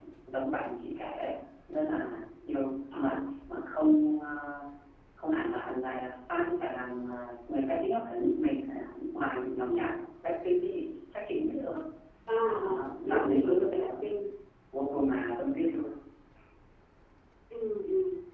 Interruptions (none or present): present